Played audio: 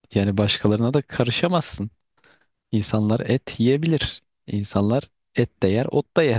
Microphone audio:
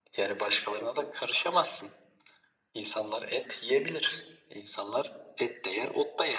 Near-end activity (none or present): none